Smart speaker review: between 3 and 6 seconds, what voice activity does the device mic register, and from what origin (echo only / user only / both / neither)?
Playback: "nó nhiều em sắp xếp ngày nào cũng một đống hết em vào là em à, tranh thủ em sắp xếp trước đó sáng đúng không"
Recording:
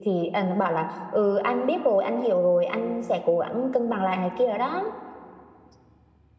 user only